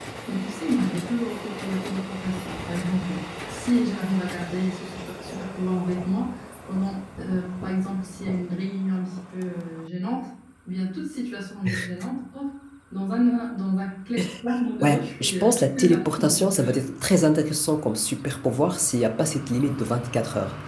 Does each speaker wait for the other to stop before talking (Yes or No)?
No